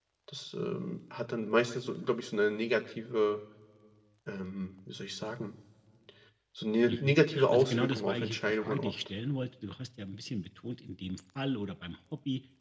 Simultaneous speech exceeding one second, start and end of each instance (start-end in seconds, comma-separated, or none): 6.9-8.9